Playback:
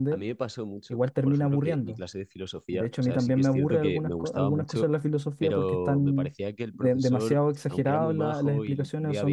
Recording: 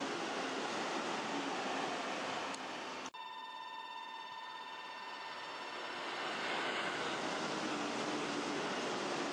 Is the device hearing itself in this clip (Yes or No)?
No